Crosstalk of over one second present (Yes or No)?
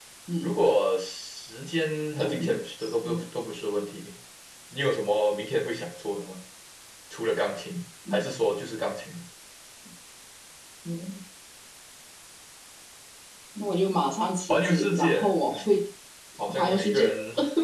Yes